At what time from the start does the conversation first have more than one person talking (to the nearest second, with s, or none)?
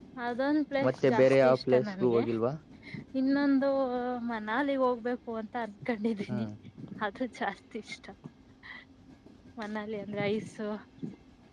1 s